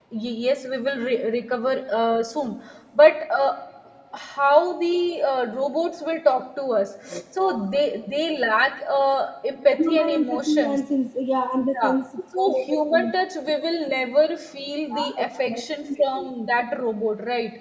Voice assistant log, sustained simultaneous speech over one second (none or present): present